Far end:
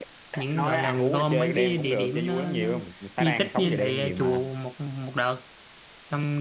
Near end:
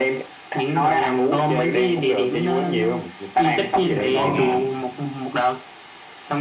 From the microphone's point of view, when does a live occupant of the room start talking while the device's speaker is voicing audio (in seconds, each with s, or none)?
3.5 s